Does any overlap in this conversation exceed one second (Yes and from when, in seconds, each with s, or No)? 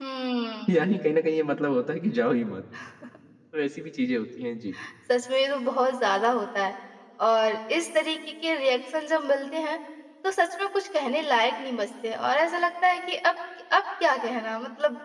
No